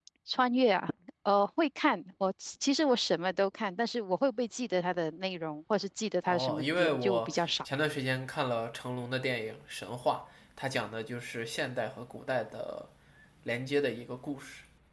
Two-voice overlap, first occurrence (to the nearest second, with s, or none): 6 s